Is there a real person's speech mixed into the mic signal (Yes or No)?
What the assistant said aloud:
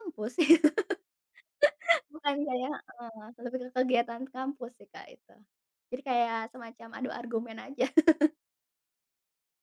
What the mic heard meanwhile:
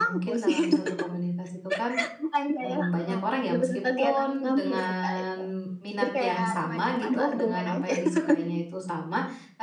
Yes